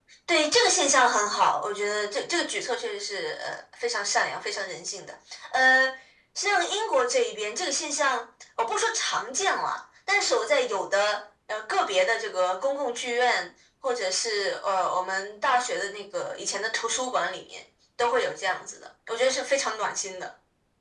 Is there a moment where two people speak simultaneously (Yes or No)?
No